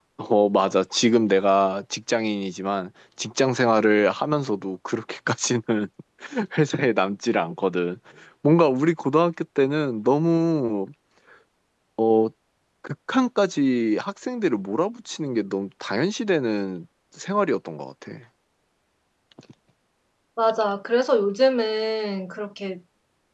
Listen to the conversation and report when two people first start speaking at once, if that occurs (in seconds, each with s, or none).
none